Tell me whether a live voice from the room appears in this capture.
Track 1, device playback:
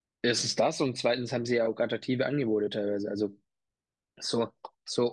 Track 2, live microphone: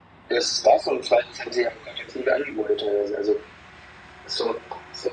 No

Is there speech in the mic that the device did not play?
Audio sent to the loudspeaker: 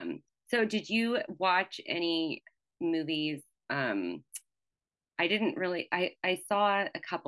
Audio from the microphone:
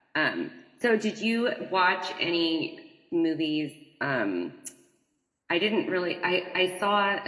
No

